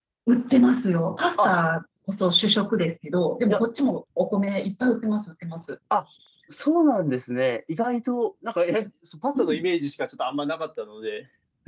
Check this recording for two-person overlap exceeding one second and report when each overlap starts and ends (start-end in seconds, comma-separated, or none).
none